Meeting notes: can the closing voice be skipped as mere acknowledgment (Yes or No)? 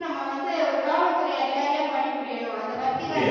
No